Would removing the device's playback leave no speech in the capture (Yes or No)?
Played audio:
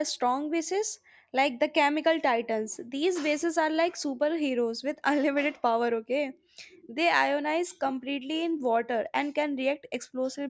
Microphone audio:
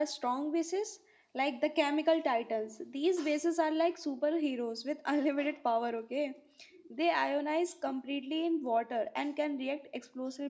Yes